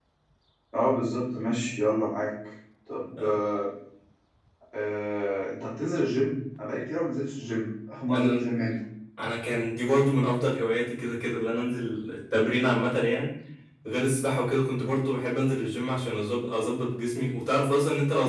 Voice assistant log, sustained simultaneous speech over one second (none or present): none